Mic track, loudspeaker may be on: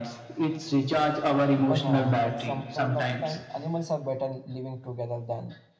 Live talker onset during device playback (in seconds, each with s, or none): 1.5 s